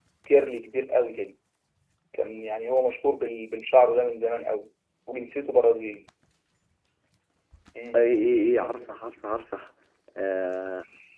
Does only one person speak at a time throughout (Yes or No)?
Yes